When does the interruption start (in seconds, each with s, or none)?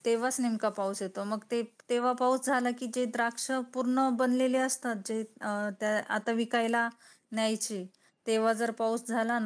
none